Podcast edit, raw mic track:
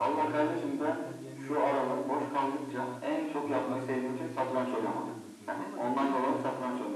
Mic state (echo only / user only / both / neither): both